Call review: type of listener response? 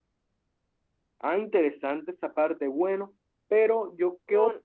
listening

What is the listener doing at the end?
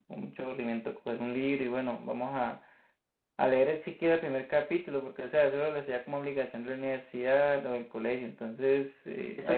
listening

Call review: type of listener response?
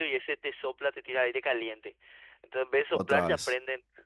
listening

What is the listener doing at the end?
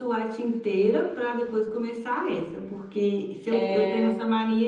listening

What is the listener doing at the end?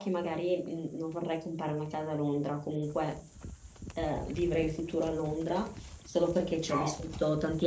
listening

